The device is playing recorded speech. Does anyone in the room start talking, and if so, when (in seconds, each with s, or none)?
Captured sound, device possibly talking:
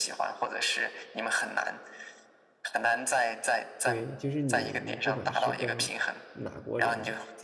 3.8 s